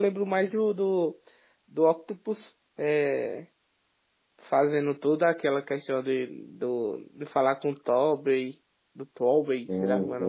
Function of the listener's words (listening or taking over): taking over